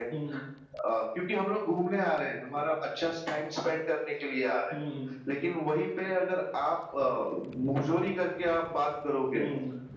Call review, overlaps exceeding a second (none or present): none